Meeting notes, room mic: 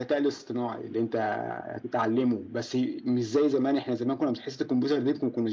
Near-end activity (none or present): none